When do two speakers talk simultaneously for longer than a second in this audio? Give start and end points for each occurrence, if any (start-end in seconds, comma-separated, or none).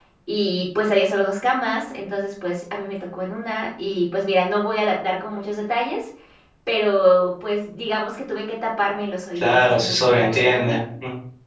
9.3-10.8